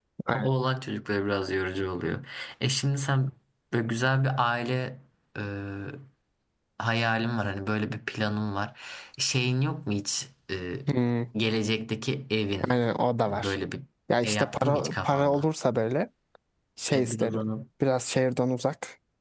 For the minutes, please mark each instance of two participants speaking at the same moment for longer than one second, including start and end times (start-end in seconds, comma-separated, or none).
14.2-15.5